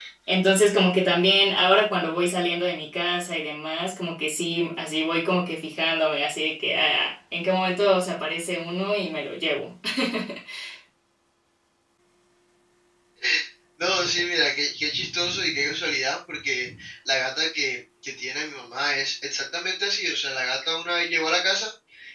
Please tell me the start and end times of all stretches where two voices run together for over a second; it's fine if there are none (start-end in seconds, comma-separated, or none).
none